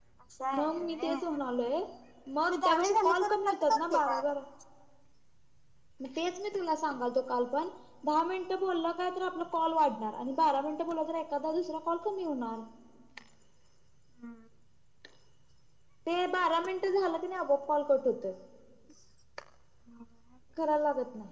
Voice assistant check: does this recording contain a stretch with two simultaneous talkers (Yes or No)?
Yes